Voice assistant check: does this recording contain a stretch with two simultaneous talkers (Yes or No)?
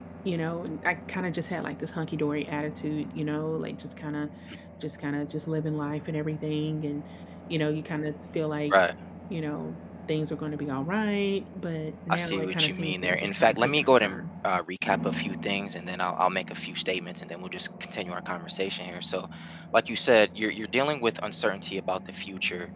Yes